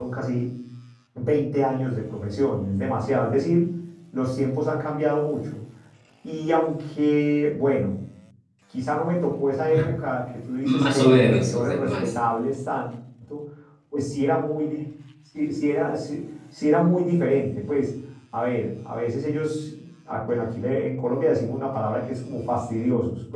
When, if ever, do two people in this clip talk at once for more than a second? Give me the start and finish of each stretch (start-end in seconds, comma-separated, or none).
10.6-12.1